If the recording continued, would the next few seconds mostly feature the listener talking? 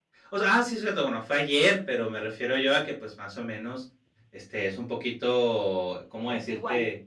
No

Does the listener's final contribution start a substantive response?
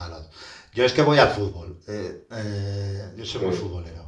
No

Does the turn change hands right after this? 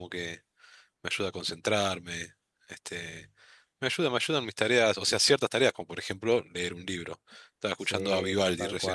Yes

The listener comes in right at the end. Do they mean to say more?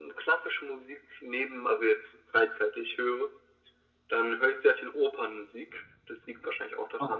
No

